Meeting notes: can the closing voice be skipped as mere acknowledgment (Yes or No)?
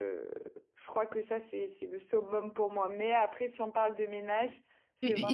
No